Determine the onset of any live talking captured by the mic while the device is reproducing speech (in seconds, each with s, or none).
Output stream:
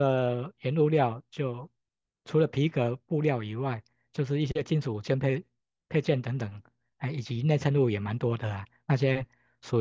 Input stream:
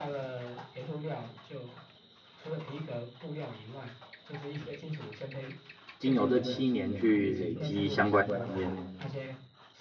6.0 s